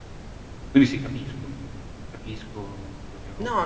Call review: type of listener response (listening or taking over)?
taking over